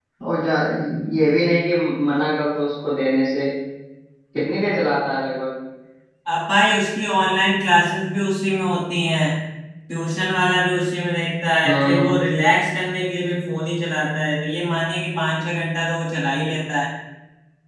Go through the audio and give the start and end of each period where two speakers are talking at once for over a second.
none

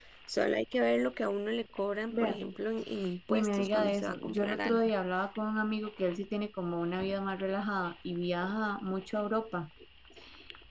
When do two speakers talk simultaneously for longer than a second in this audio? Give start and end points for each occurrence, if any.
3.3-4.9

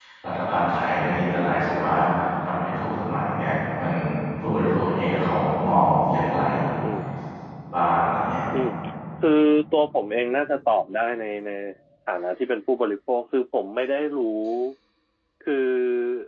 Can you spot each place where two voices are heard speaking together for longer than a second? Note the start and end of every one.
none

